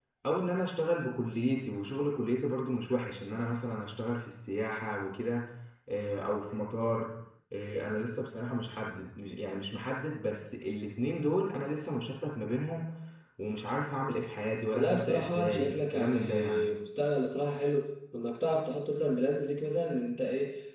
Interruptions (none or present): present